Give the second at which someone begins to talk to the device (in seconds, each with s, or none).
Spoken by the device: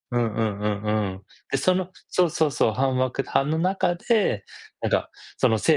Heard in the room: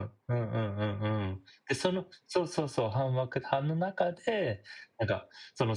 none